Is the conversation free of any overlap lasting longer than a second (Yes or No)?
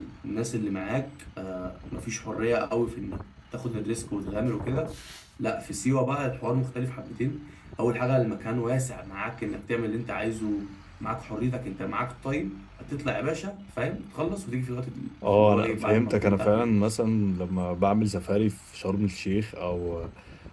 No